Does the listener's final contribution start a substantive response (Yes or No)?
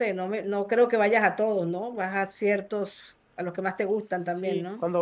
Yes